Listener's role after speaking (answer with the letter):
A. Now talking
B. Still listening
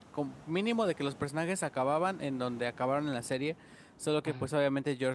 B